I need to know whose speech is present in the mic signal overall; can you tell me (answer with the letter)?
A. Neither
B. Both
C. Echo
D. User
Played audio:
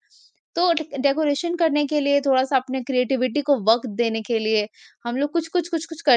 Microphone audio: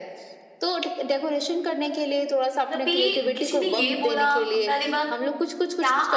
B